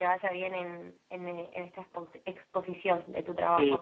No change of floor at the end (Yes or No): No